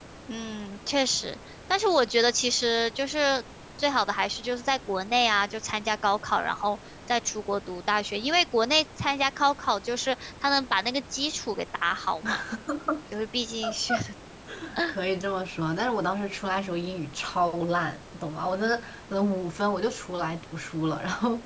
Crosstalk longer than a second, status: none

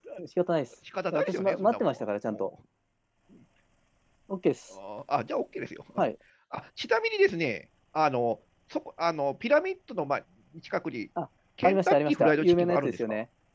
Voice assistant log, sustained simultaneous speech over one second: present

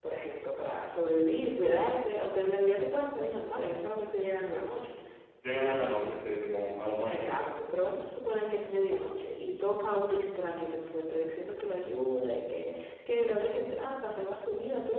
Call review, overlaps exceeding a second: none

